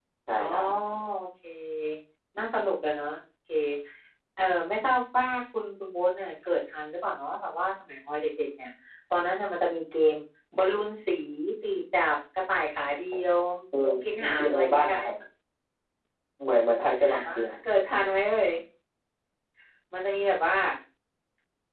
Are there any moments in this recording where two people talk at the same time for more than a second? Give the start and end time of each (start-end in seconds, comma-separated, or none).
13.8-15.0